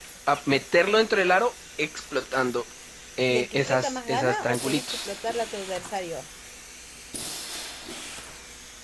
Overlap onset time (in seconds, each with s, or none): 3.3 s